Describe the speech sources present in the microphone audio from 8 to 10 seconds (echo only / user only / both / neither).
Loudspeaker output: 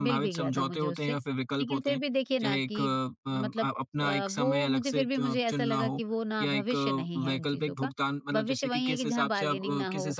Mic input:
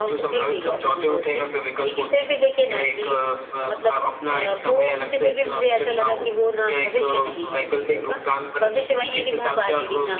echo only